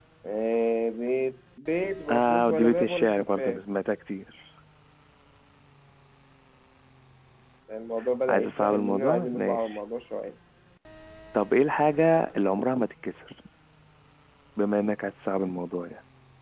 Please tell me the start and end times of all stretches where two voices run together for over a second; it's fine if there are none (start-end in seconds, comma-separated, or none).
2.1-3.6, 8.3-9.8